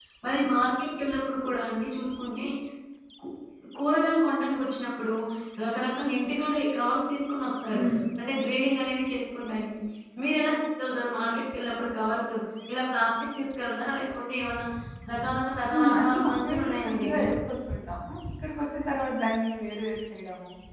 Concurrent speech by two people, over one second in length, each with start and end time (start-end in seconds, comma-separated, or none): 15.7-17.2